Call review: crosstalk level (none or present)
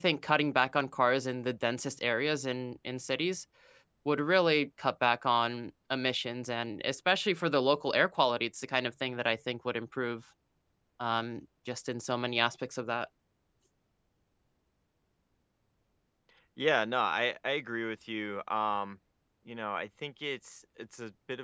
none